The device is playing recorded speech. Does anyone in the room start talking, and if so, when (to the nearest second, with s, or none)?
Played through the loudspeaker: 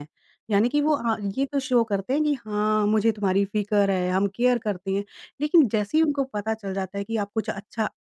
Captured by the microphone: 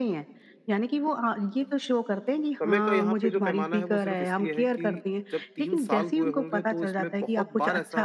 3 s